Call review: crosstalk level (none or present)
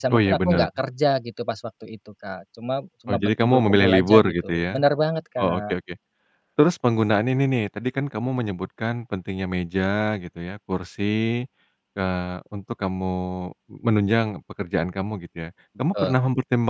present